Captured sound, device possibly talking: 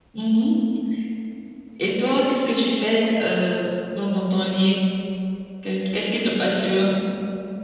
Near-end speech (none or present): none